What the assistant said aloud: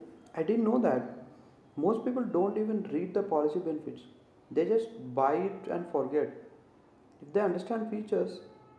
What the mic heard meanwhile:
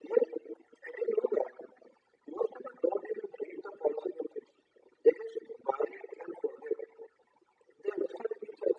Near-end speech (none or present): none